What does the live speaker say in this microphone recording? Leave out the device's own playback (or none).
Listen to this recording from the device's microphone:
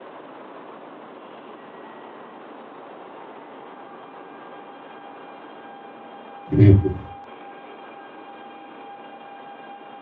うん